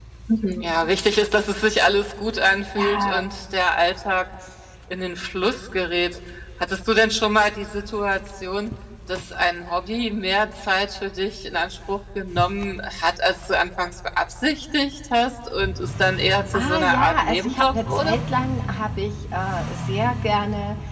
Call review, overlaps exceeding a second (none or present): present